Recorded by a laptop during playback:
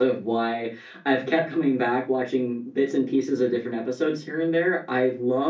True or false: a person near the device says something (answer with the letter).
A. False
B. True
B